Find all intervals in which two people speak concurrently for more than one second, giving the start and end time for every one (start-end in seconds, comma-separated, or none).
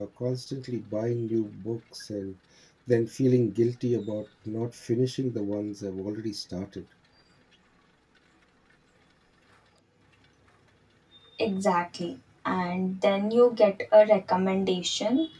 none